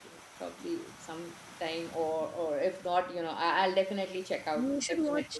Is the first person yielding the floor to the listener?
Yes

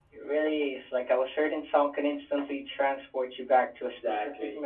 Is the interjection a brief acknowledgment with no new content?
No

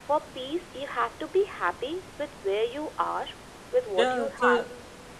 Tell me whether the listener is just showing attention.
No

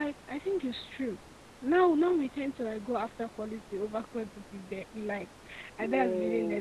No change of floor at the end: Yes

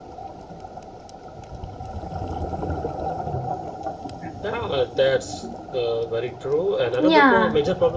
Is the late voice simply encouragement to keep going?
Yes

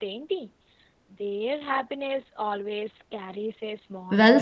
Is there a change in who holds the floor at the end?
Yes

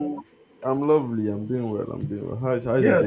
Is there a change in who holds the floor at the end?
Yes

